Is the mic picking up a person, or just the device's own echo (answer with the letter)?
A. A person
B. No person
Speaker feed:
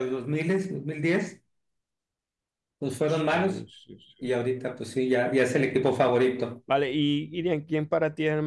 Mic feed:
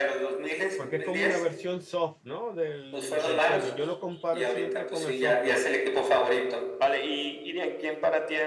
A